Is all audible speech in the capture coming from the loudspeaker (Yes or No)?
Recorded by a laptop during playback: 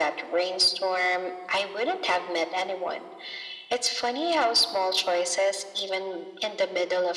Yes